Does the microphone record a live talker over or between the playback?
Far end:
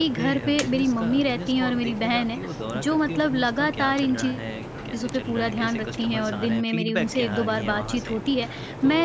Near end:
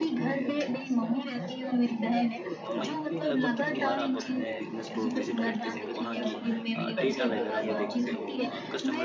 Yes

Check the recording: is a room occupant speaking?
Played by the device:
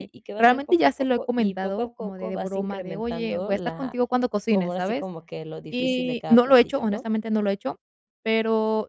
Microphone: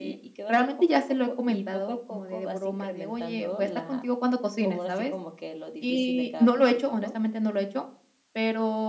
No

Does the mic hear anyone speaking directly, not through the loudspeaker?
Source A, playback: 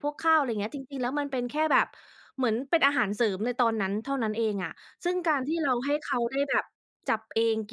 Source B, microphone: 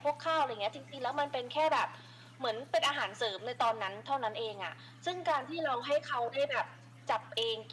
No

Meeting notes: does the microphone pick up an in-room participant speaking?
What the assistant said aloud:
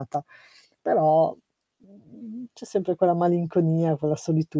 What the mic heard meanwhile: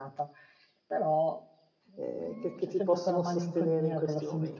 Yes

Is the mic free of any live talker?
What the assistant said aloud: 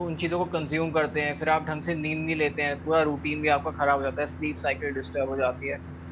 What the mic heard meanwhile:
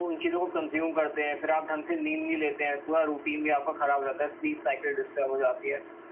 Yes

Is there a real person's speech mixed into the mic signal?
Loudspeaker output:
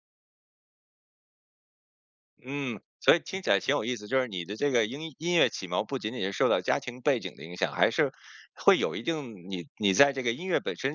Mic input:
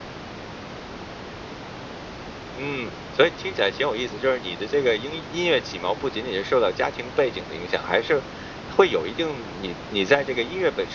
No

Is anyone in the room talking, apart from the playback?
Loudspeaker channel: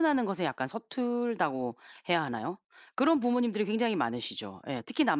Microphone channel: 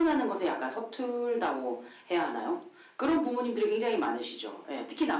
No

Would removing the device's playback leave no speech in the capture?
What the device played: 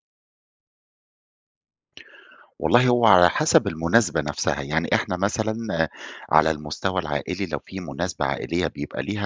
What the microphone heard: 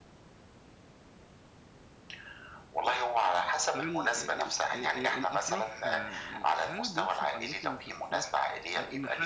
No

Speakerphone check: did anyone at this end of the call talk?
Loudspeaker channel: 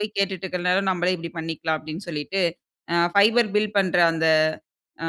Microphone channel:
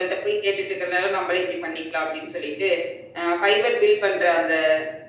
No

